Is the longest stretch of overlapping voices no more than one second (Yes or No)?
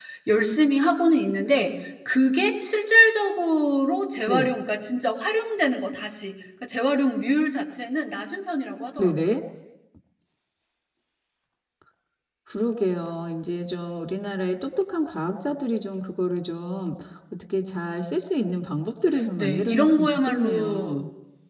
No